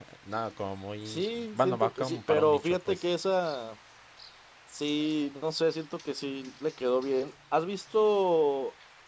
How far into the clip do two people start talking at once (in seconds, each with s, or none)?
1.1 s